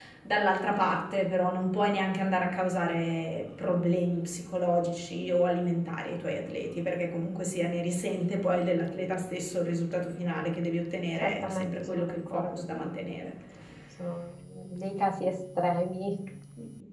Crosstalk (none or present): present